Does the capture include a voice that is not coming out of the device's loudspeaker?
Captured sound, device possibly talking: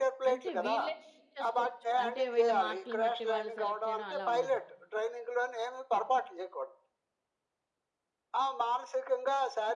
Yes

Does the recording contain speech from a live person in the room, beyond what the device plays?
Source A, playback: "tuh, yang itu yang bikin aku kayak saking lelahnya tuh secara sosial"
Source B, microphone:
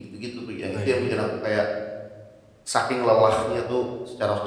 Yes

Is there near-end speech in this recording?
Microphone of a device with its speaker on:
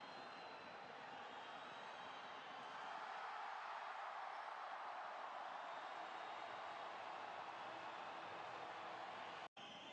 No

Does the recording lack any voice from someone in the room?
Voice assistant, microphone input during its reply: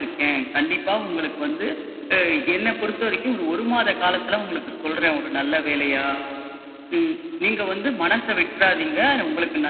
Yes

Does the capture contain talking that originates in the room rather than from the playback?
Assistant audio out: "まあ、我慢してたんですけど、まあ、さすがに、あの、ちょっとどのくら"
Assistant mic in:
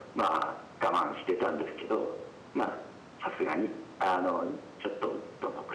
No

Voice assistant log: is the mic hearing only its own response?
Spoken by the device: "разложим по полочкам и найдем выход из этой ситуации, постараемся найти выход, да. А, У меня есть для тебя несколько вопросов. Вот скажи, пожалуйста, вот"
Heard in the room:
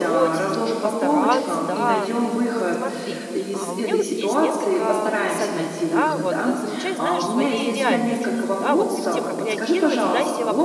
No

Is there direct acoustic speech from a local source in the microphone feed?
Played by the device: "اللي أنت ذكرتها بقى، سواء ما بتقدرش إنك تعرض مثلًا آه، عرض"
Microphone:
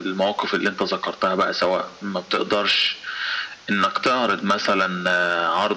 No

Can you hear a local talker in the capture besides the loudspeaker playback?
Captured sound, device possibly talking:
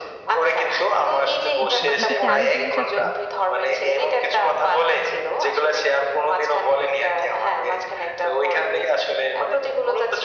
Yes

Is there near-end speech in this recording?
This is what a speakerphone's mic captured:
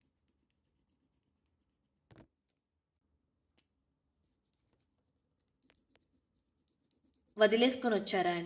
Yes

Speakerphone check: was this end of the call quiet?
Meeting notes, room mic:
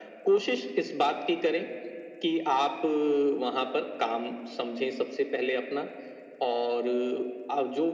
Yes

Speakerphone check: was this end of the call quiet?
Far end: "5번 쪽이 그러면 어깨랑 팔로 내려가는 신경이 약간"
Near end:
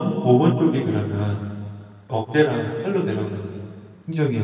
Yes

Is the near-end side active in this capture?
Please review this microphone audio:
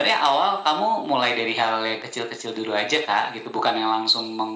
No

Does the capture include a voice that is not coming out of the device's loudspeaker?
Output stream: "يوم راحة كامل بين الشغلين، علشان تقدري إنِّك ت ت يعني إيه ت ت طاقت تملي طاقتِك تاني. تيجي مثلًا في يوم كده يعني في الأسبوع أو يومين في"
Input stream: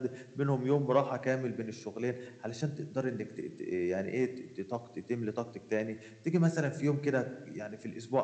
No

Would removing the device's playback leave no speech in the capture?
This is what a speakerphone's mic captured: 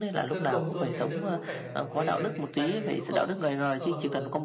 No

